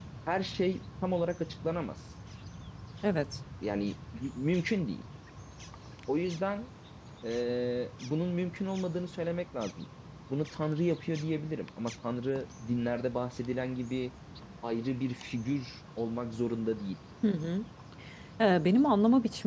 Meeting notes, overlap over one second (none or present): none